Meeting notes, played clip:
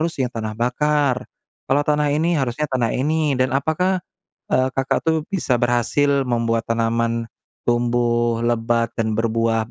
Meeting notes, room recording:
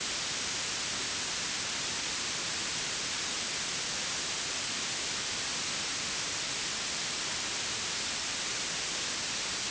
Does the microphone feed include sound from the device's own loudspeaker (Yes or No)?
No